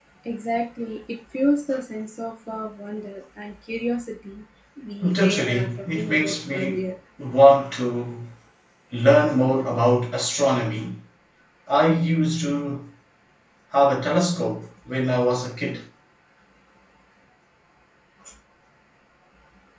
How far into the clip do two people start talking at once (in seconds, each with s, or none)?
5.1 s